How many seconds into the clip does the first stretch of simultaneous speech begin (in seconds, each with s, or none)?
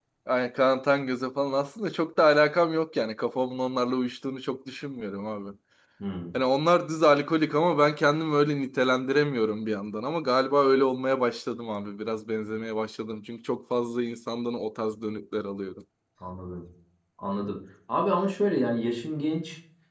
none